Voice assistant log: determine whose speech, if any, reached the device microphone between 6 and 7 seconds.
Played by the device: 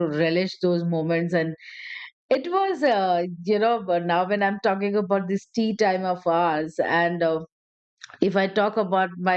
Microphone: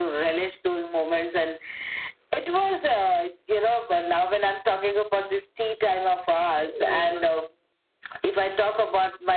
both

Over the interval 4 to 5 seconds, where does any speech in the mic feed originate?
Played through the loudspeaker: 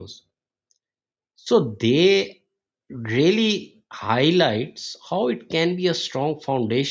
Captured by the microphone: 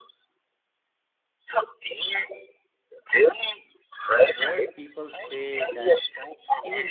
both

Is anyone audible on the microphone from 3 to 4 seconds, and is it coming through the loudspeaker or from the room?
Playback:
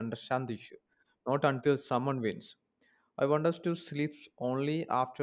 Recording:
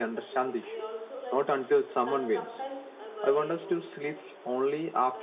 both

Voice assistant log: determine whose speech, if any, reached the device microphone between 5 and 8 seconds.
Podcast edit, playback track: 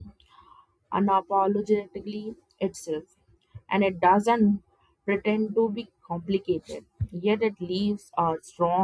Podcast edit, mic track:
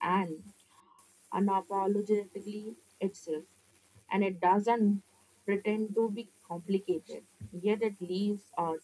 echo only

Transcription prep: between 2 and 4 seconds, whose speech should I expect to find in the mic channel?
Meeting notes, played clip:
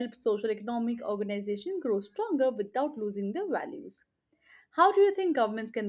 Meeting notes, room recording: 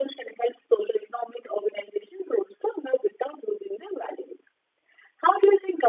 echo only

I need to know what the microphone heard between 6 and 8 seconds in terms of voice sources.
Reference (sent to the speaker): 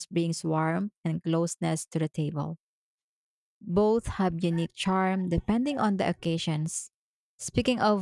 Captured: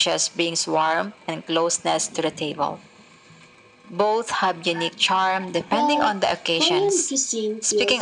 both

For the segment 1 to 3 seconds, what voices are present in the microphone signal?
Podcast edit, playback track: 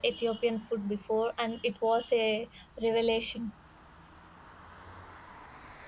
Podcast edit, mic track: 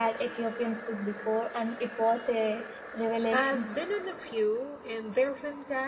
echo only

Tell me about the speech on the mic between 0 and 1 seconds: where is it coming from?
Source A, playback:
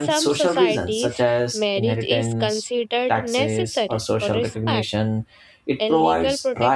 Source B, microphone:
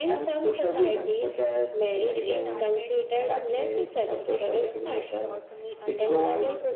echo only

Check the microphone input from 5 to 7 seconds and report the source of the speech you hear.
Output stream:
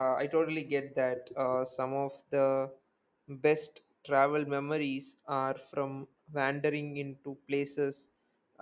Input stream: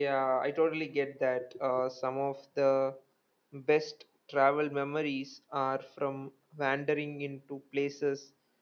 echo only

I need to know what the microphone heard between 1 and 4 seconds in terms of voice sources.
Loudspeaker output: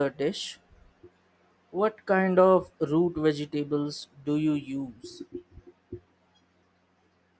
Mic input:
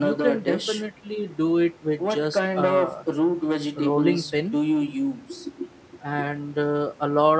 both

